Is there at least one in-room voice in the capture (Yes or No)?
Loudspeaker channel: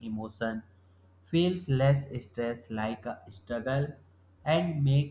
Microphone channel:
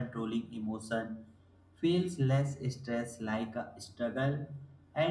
No